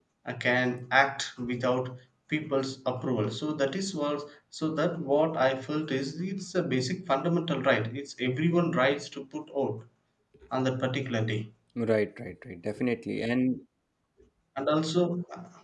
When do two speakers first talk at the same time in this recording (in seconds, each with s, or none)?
none